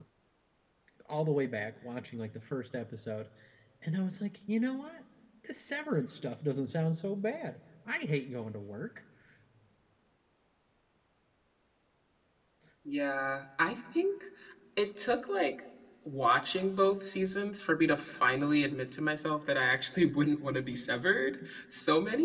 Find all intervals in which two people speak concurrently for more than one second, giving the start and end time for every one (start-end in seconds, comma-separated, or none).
none